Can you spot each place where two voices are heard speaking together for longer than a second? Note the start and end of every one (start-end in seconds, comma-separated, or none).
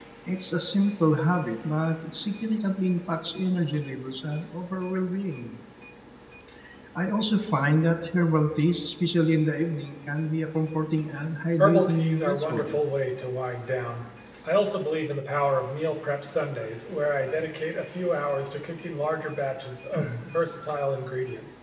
11.6-12.8